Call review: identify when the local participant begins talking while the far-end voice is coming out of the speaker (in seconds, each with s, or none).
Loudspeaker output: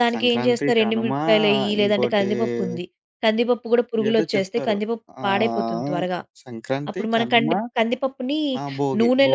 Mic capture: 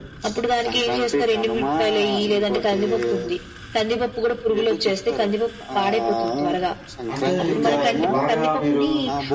7.1 s